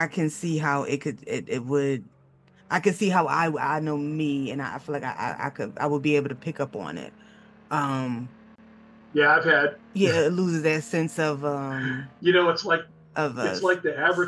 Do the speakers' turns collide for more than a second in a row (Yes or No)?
No